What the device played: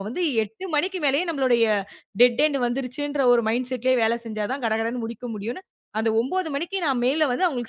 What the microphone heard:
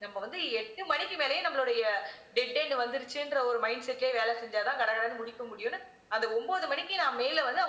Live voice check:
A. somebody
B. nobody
B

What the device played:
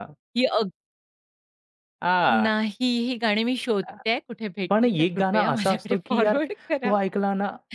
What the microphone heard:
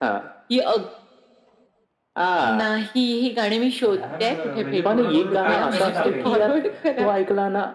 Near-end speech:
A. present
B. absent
A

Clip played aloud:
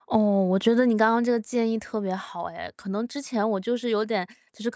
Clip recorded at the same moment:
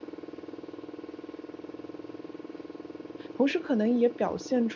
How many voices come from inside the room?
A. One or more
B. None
A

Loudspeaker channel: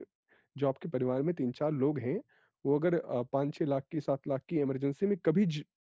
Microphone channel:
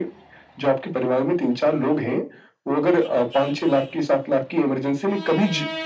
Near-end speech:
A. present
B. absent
B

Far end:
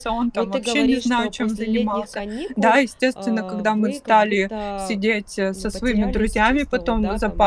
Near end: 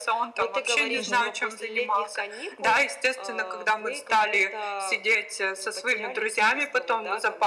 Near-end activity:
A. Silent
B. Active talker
B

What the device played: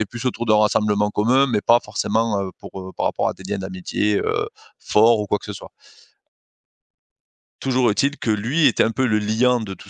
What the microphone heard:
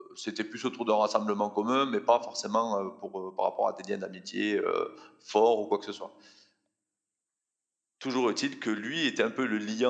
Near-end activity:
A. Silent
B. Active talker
A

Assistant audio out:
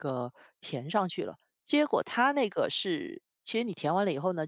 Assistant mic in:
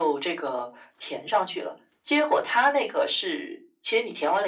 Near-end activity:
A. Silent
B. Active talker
A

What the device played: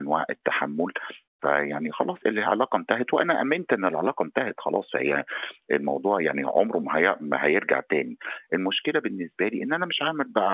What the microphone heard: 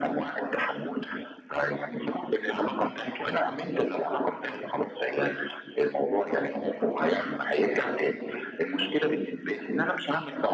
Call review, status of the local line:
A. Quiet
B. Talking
A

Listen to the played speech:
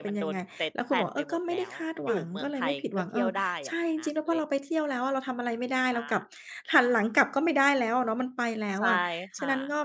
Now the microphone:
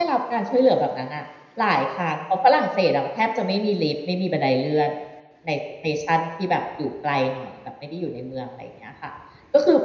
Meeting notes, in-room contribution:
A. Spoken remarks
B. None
A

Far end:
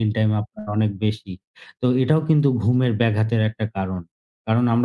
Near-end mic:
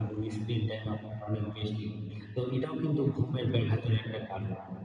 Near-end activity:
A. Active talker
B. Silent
B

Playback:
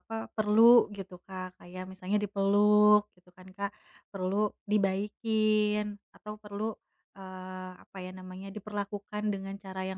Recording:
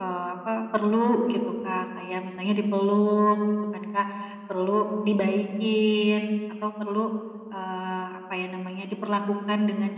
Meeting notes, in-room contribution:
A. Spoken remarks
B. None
B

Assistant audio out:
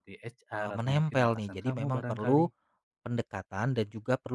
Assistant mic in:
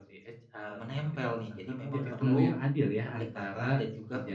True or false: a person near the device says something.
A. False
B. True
B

